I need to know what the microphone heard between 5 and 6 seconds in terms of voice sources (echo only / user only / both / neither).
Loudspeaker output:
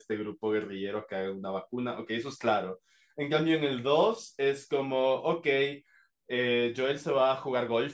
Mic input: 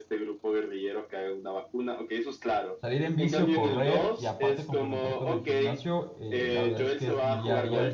both